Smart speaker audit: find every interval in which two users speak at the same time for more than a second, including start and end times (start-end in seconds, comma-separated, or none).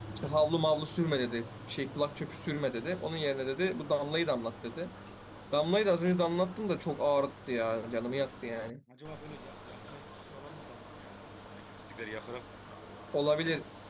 none